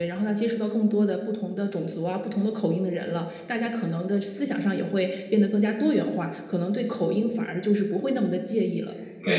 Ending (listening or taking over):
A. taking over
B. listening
A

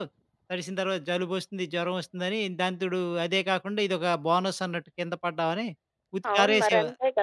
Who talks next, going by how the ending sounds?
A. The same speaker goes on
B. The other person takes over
B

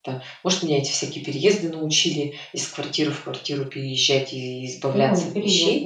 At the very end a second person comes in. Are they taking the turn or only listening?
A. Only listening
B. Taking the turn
B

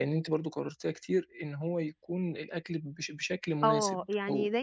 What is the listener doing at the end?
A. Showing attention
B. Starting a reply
B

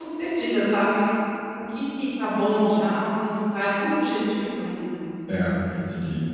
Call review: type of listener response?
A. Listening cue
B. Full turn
B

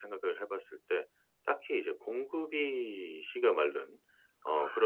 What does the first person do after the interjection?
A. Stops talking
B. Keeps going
B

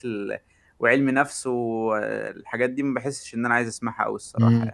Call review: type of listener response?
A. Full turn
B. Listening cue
A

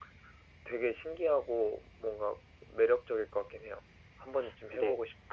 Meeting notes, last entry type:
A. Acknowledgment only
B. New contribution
B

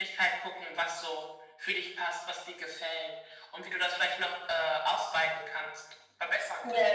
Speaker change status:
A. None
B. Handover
B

